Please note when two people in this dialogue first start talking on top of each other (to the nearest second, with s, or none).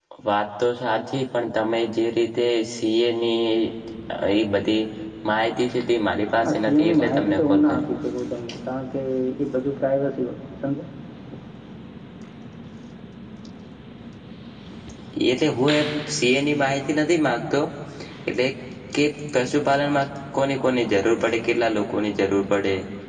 6 s